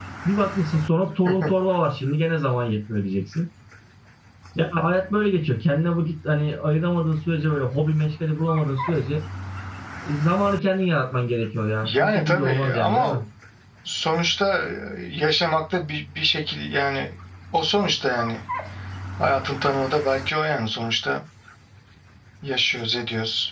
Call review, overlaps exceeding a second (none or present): present